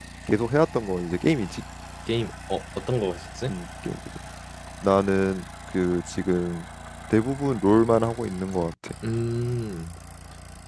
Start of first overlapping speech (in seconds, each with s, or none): none